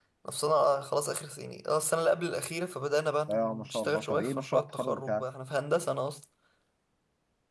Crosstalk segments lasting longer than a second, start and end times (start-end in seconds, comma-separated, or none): 3.3-5.2